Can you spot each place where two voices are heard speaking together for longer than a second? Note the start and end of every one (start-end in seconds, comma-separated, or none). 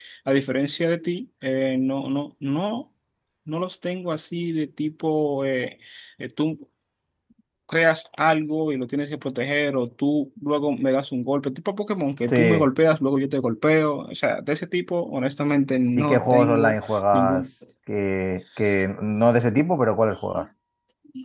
15.9-17.4